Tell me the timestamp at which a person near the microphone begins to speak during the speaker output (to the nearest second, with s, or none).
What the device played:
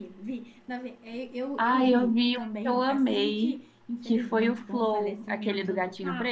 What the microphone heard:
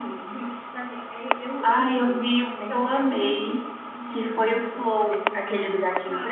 none